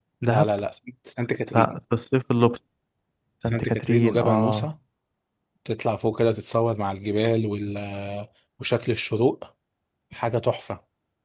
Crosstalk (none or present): present